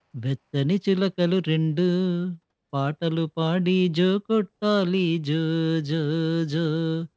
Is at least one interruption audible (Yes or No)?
No